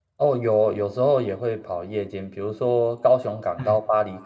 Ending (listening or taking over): listening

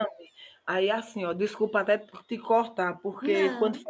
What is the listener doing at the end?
listening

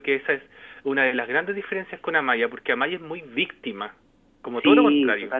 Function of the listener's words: taking over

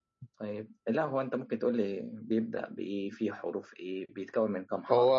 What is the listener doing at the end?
taking over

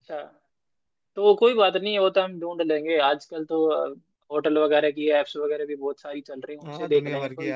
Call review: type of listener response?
taking over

